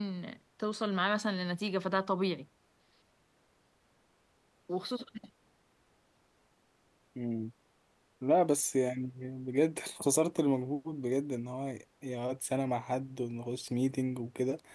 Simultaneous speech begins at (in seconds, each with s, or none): none